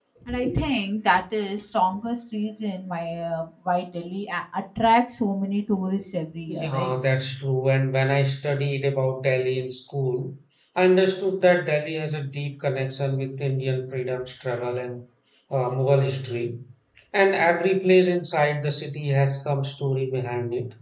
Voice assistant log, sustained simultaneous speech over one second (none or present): none